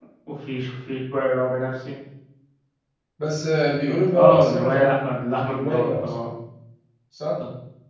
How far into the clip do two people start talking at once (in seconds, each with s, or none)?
4.1 s